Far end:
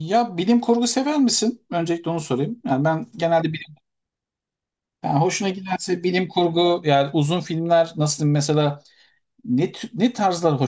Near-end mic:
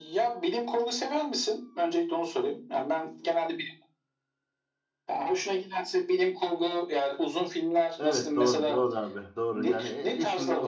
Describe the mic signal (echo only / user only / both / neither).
both